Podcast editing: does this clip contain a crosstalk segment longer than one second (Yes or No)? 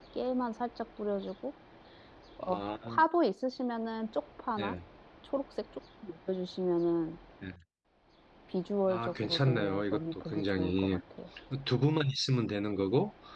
Yes